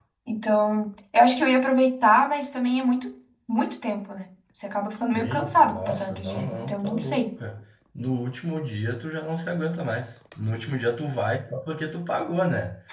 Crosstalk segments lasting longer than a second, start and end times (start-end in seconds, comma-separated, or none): 5.1-7.3